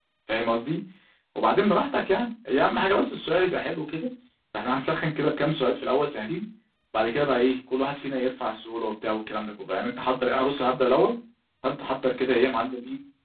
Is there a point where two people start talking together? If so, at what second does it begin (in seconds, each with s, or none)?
none